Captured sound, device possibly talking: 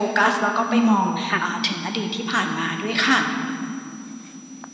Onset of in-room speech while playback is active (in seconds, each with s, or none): 0.7 s